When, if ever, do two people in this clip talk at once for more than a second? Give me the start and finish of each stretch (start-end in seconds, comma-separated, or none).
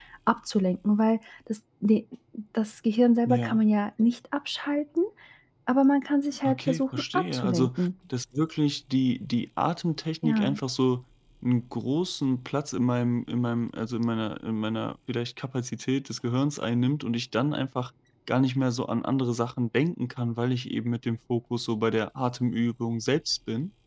6.5-7.7